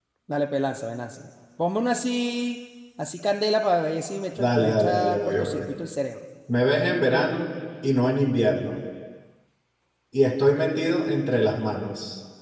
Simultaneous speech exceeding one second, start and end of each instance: 4.4-5.7

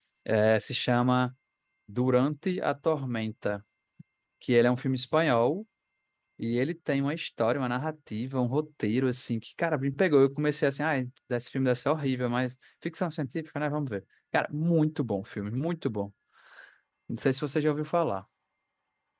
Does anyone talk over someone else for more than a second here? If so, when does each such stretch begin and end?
none

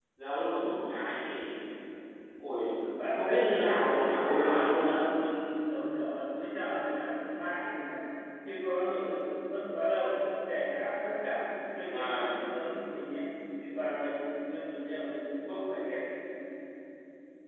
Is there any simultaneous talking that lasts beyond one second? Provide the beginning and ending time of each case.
3.1-5.0

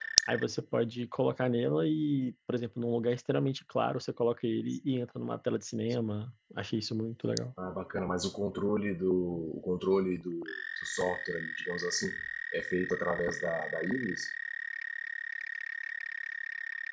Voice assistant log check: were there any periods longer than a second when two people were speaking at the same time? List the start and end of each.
none

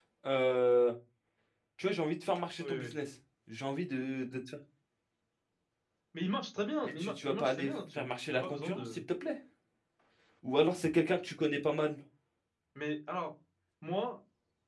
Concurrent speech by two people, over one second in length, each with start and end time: 6.8-9.0

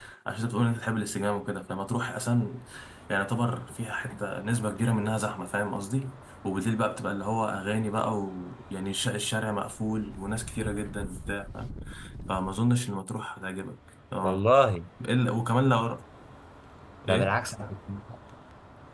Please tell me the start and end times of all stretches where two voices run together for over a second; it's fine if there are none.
none

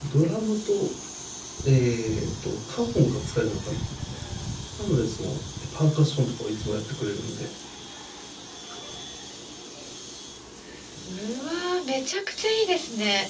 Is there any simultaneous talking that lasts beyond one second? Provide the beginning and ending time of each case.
none

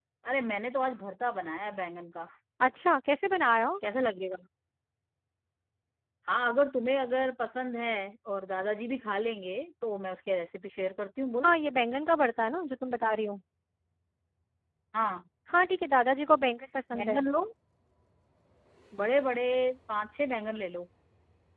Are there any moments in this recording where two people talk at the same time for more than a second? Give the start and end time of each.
none

